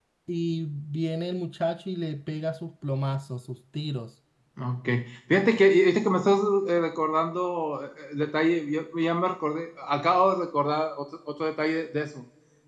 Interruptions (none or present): none